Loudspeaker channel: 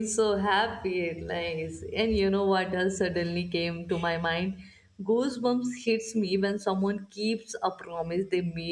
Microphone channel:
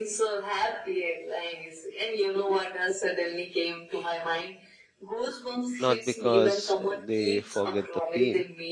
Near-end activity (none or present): present